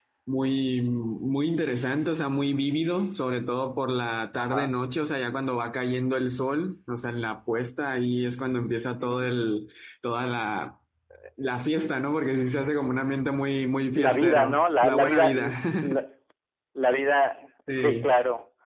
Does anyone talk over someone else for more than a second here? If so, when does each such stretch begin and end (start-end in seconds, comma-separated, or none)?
14.0-15.3